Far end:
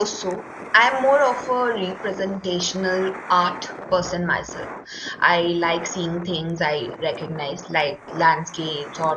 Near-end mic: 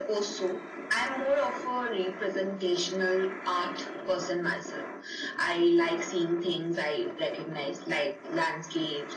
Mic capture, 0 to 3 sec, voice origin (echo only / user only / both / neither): echo only